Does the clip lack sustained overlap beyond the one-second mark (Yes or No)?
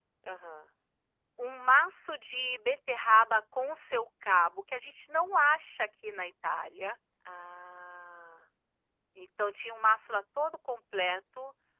Yes